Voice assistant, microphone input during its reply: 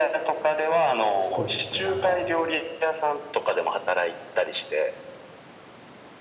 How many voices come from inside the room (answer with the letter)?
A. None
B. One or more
B